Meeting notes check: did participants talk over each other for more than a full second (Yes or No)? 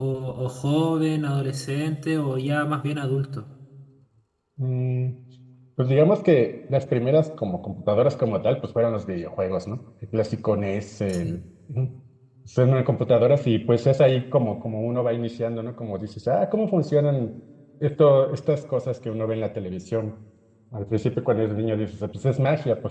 No